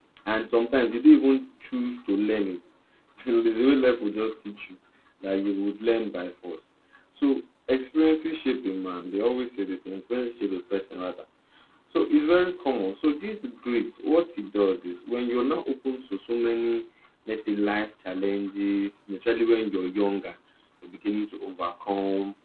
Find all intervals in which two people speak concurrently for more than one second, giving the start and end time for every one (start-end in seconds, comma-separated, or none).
none